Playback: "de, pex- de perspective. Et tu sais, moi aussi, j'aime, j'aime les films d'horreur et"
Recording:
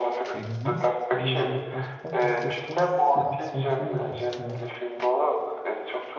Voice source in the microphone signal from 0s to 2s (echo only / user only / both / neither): both